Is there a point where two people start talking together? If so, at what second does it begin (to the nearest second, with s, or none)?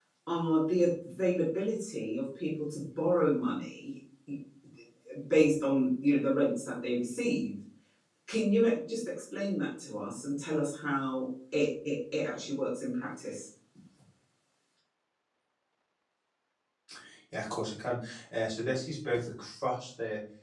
none